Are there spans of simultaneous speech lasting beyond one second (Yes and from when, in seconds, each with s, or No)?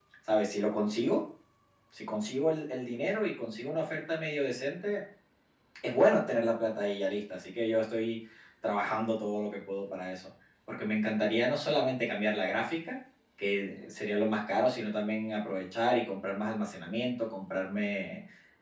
No